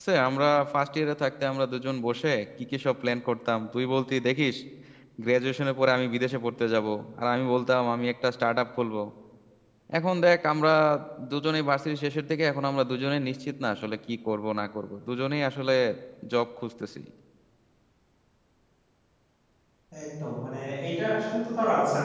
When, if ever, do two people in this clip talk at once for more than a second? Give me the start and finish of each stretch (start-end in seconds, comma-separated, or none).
none